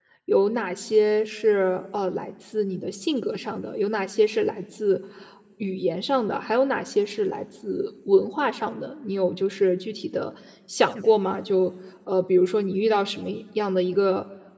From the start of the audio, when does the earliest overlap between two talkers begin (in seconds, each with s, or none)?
none